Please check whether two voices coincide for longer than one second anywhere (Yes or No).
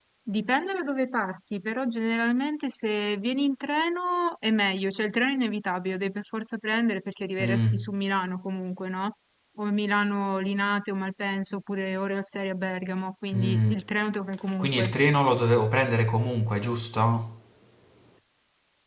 No